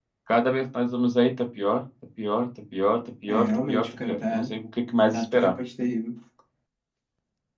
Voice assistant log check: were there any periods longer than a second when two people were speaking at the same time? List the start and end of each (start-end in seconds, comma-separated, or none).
3.3-4.5